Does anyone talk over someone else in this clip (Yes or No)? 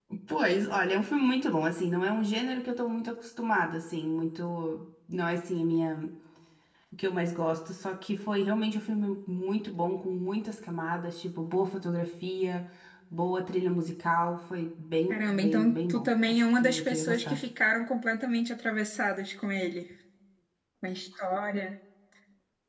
Yes